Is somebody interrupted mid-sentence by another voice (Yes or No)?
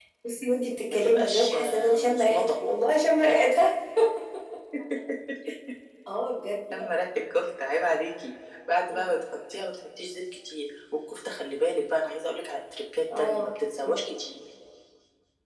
Yes